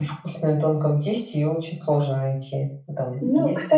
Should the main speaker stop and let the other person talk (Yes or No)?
Yes